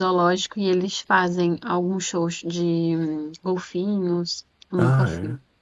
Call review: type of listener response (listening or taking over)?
taking over